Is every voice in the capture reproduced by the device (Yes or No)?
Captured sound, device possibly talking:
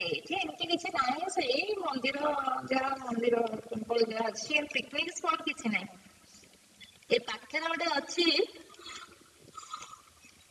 Yes